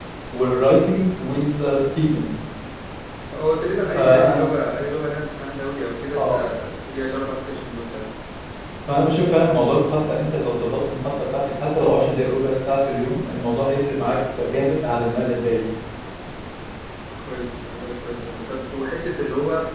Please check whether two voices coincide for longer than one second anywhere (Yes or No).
No